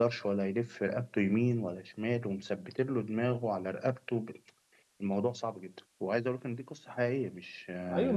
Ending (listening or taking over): taking over